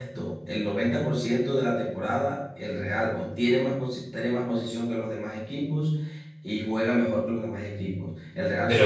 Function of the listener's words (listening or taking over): taking over